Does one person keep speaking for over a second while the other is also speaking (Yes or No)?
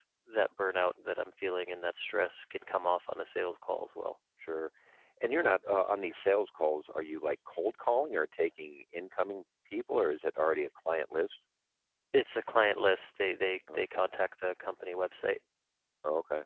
No